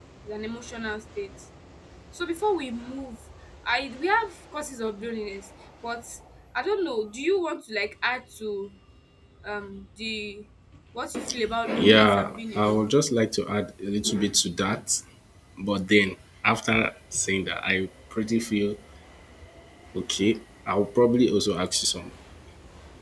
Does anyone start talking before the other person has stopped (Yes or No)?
Yes